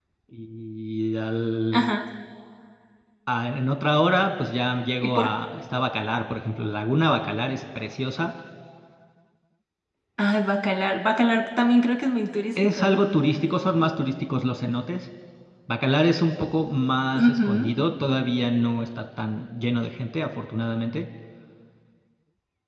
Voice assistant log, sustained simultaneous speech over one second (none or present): none